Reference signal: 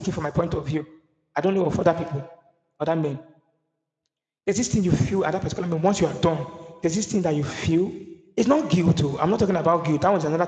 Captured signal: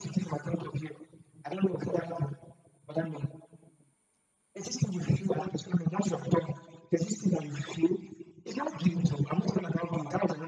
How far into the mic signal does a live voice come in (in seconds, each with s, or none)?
none